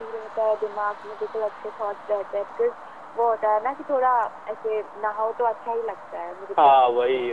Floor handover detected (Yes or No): Yes